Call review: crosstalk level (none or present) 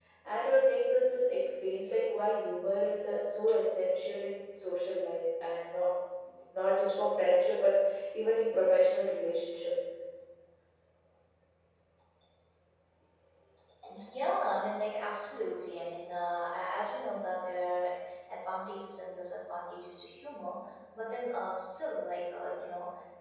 none